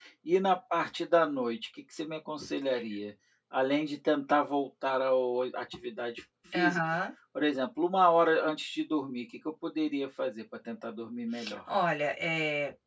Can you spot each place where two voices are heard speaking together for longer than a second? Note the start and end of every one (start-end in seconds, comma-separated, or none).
none